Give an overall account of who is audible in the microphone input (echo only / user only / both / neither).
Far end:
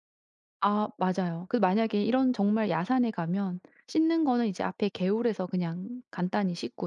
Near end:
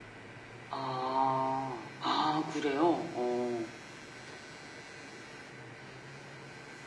user only